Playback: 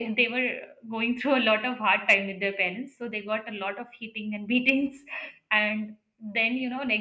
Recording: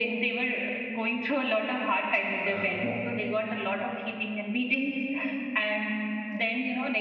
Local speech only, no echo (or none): Uh, mo-